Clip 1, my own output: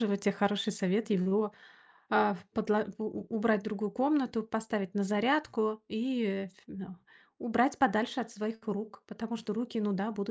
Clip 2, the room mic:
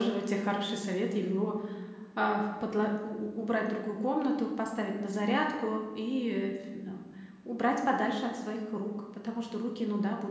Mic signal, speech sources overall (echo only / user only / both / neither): echo only